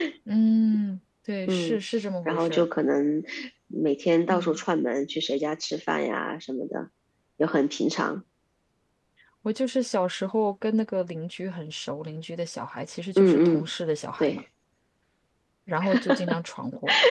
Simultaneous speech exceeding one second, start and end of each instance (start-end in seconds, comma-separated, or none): none